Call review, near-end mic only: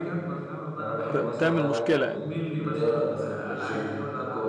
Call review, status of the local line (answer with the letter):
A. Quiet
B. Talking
B